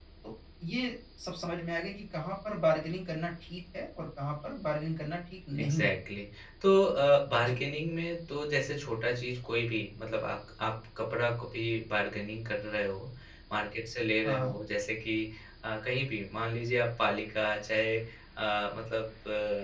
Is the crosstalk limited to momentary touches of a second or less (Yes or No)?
Yes